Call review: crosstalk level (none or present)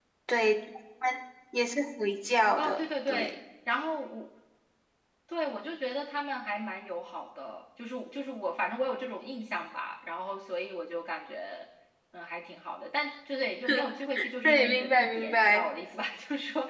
present